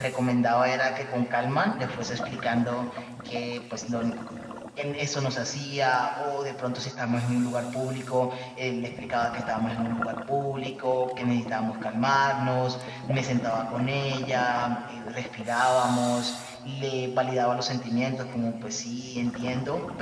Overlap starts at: none

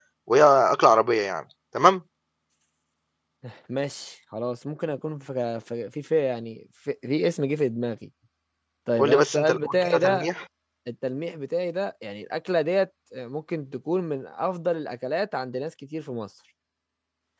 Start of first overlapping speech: 9.0 s

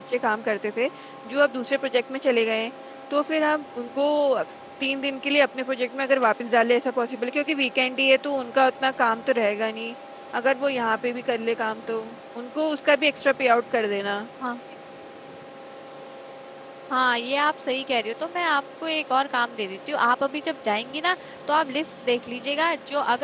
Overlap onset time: none

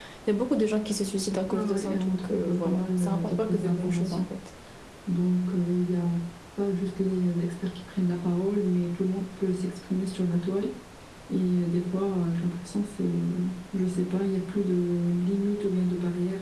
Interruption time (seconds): 1.5 s

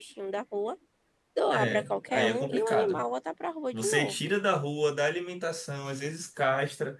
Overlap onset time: 1.5 s

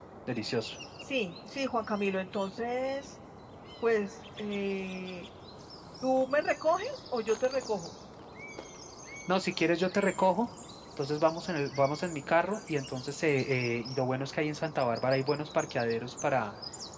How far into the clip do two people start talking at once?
none

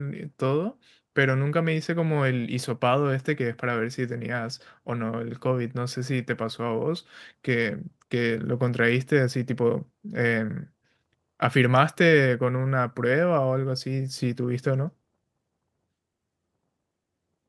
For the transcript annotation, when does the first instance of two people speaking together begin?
none

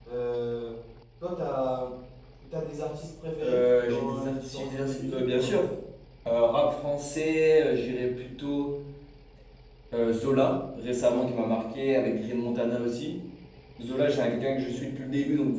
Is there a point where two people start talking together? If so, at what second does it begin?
3.4 s

